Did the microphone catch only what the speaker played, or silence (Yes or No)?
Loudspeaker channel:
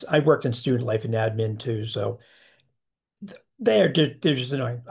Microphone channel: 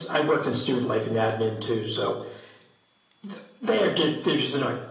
Yes